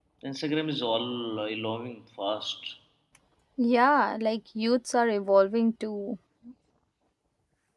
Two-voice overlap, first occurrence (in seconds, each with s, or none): none